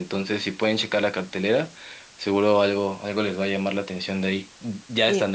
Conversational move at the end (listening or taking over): taking over